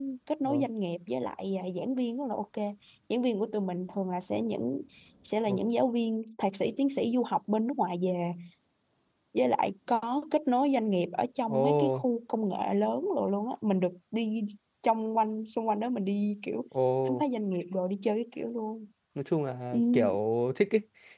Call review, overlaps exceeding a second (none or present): none